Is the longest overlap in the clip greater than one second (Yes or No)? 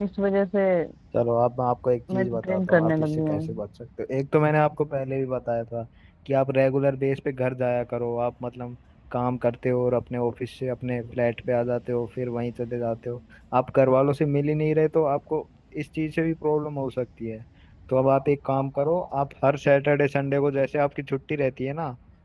Yes